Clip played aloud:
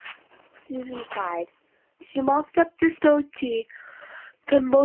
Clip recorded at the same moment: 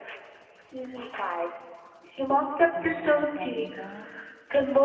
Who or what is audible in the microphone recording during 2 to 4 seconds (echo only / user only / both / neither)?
both